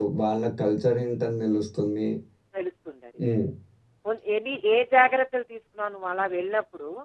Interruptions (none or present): none